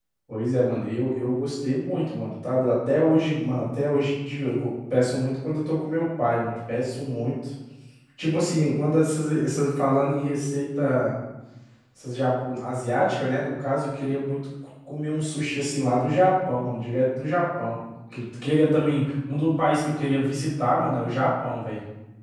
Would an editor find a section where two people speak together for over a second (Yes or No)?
No